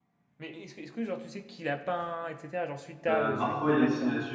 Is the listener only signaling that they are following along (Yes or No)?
No